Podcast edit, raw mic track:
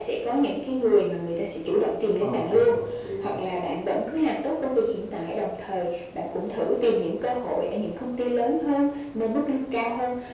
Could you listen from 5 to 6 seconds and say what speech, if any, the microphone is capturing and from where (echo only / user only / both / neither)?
echo only